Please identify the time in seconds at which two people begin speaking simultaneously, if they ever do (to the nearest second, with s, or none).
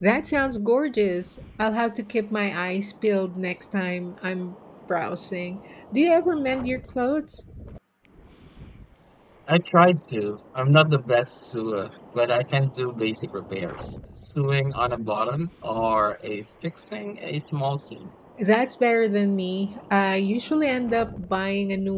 none